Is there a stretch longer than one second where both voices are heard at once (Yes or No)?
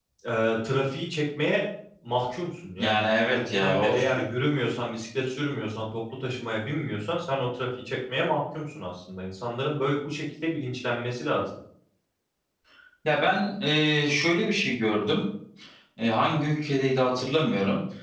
No